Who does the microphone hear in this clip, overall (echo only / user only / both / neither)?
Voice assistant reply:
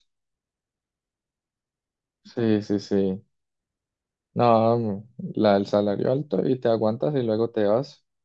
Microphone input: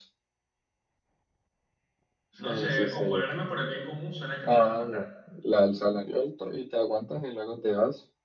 both